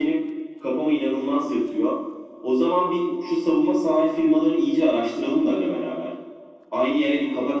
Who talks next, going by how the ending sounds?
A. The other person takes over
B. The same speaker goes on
B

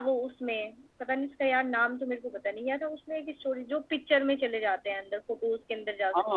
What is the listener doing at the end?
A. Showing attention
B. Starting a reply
B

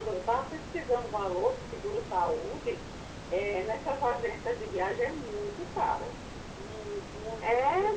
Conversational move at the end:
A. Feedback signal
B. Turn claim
B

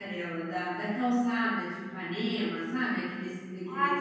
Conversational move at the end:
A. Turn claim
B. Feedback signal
A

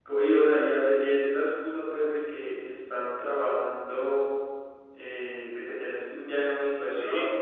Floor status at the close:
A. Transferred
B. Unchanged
A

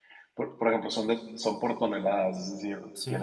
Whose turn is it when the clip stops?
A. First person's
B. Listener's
A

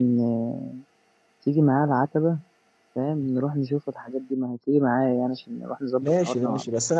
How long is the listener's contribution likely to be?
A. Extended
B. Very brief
A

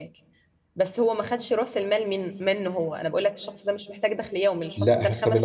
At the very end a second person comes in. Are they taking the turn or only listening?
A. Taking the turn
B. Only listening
A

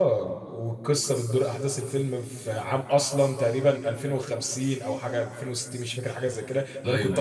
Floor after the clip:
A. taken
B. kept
B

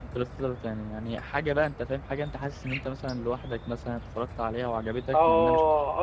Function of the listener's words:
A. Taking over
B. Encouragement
A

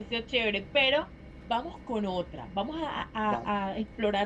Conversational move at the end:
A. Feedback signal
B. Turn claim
A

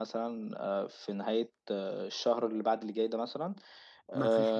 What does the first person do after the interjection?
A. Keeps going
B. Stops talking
A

